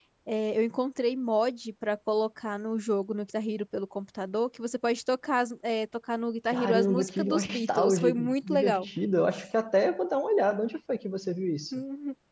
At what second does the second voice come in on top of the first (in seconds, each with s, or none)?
6.5 s